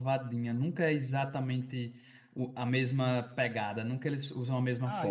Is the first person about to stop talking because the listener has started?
Yes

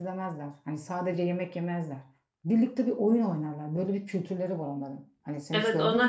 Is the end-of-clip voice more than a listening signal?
Yes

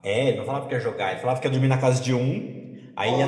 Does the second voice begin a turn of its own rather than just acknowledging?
No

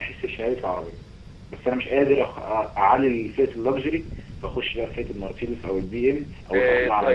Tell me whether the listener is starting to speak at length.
Yes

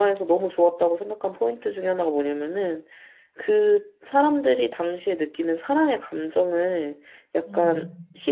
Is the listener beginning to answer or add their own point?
No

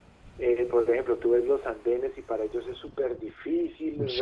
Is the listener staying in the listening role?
Yes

